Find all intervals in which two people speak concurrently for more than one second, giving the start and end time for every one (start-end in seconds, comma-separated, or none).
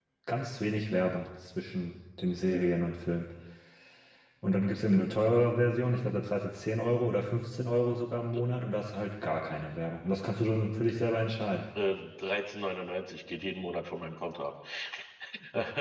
none